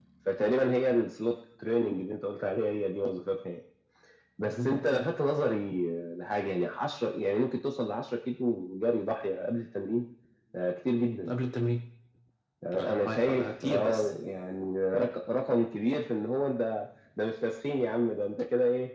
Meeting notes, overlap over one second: present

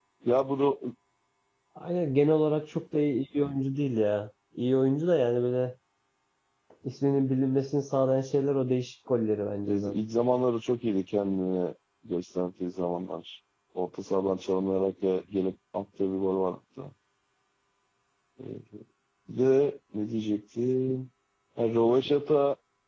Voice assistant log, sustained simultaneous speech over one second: none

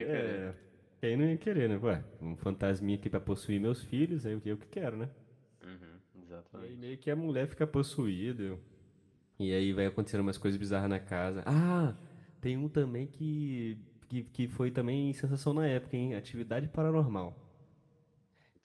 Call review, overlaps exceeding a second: none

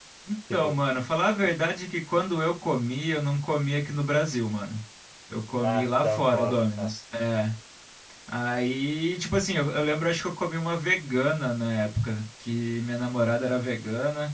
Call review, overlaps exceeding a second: present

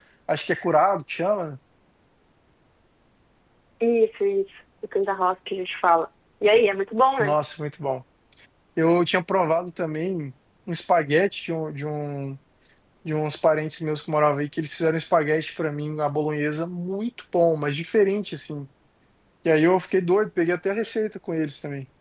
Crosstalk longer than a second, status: none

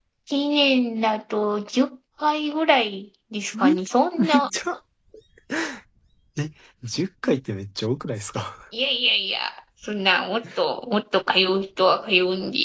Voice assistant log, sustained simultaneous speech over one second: none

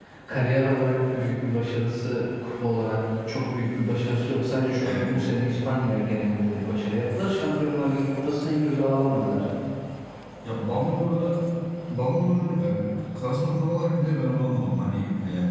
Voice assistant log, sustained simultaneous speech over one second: none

